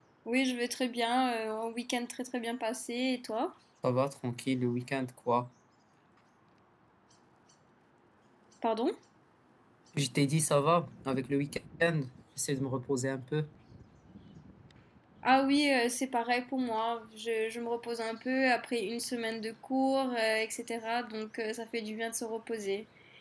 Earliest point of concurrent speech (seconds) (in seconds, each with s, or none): none